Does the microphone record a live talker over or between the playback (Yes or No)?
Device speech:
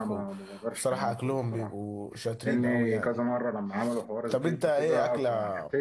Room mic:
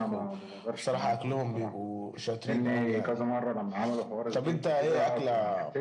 No